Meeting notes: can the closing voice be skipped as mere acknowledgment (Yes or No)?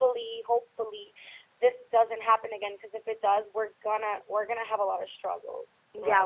No